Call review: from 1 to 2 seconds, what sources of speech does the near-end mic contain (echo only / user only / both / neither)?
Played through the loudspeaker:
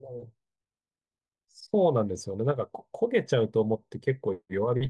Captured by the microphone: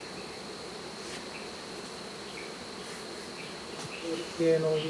neither